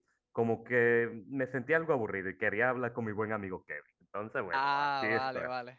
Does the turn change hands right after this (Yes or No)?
Yes